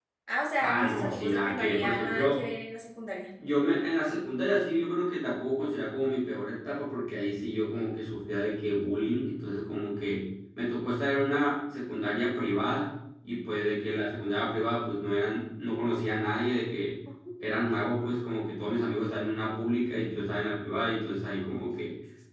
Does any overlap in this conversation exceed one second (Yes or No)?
Yes